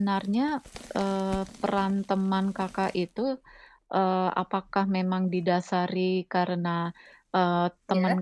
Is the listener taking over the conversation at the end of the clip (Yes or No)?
No